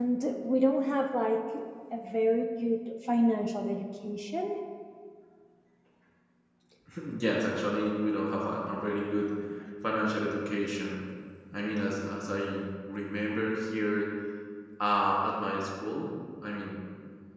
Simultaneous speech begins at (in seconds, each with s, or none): none